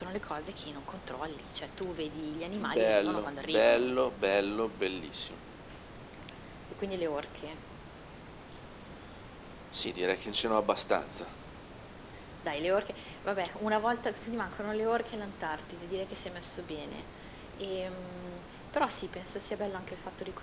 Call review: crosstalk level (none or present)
present